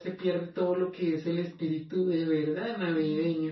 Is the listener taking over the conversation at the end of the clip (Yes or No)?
Yes